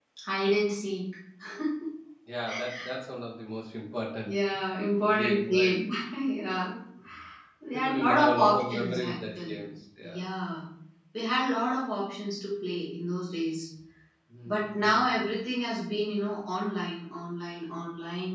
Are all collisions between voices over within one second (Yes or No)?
No